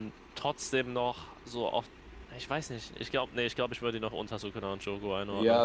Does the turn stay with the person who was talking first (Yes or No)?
No